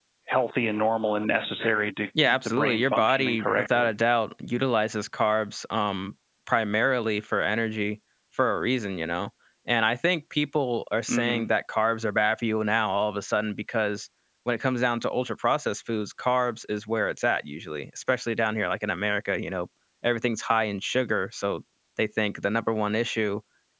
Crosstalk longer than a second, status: present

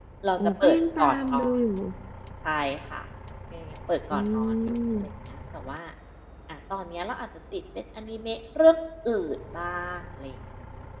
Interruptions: present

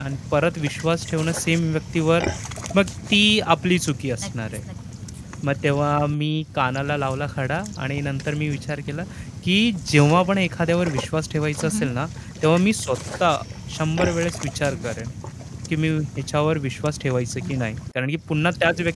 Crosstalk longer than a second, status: none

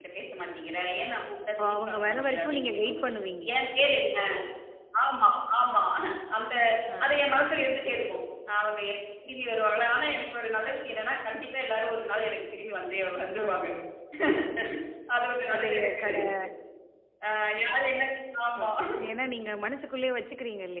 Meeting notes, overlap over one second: present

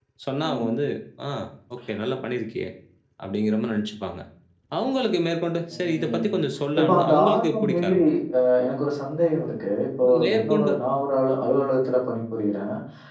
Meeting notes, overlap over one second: present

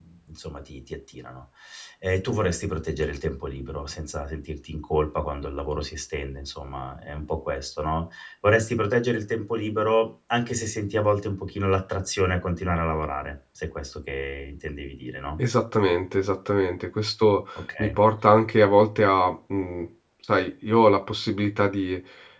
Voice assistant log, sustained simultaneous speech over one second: none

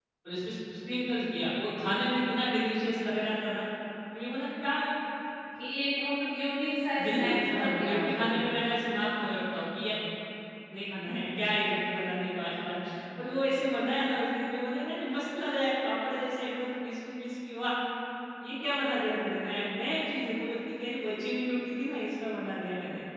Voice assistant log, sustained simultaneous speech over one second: present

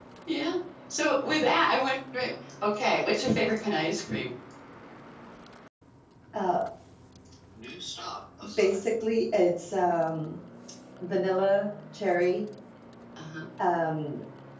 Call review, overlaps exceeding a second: none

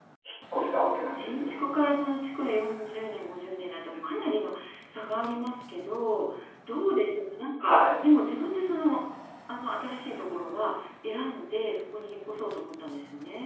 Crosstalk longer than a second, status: none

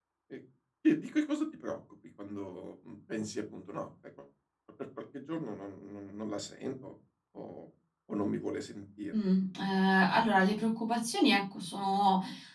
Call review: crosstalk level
none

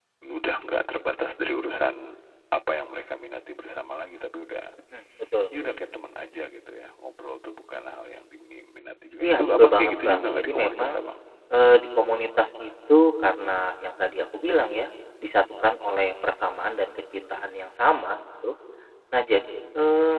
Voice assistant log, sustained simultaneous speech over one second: present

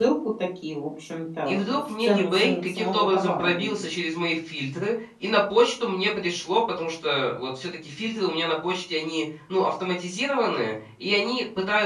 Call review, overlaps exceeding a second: present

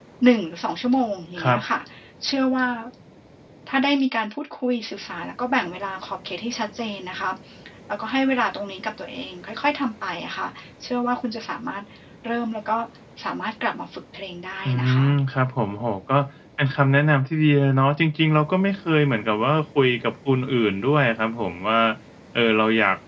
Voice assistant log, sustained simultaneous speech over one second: none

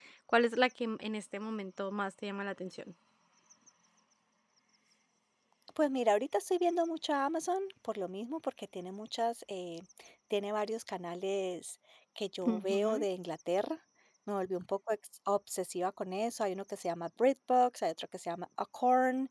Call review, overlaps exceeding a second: none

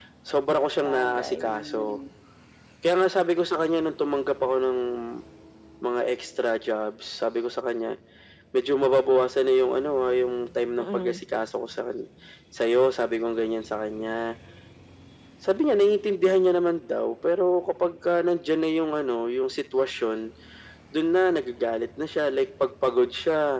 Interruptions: present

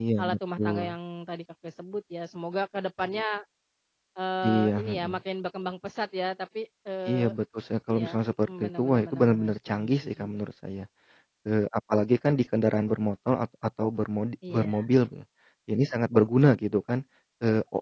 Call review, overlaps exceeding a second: present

